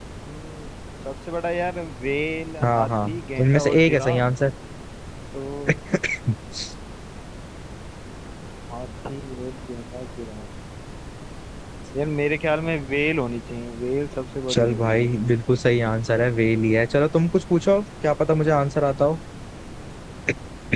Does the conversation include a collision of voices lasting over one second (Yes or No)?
Yes